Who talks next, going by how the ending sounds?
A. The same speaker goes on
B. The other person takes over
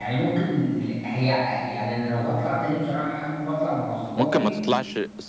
B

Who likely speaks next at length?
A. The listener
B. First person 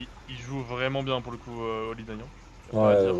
A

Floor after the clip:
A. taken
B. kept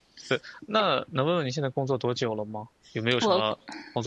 B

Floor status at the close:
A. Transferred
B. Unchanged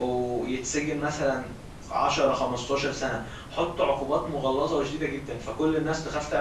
B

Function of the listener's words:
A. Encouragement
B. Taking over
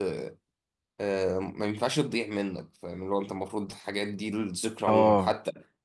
A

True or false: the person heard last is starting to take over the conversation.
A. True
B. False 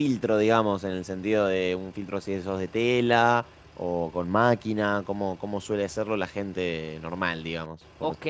A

